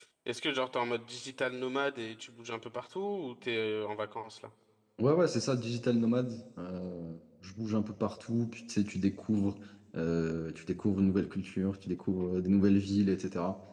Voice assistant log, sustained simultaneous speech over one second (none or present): none